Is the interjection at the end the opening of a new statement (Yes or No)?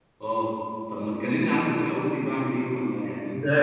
Yes